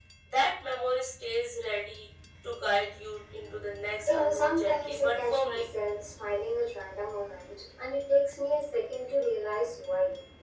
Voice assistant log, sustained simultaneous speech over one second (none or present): present